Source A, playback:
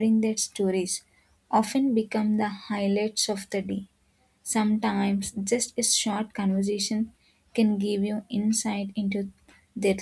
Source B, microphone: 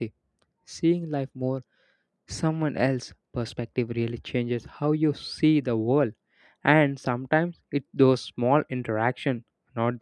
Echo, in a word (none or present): none